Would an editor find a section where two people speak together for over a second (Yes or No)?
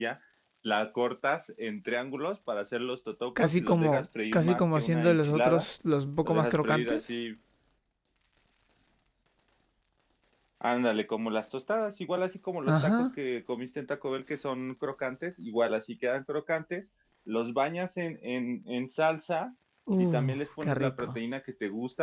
Yes